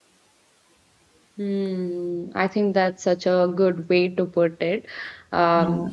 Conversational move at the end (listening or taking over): listening